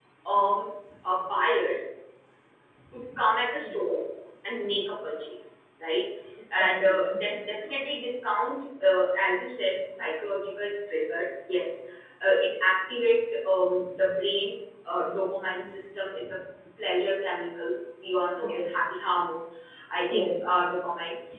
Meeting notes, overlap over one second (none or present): none